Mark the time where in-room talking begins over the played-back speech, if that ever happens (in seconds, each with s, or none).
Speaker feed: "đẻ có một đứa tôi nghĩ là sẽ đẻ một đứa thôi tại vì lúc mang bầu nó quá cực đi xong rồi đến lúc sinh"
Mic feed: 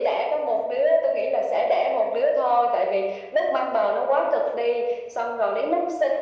none